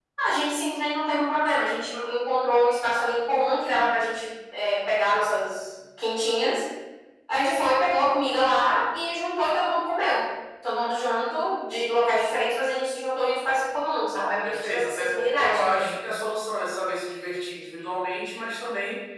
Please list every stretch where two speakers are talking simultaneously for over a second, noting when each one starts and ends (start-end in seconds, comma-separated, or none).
14.4-15.9